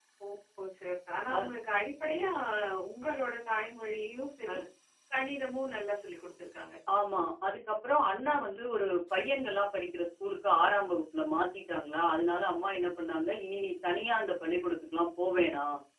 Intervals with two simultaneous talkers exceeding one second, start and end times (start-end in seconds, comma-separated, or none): none